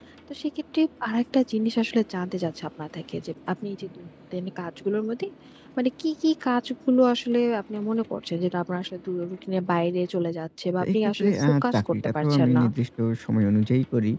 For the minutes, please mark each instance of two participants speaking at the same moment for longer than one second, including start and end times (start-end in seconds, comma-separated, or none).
10.8-12.5